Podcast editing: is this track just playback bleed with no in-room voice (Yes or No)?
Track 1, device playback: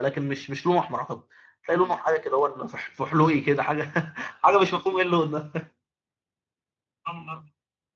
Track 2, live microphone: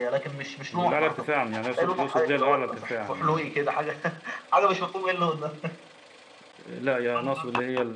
No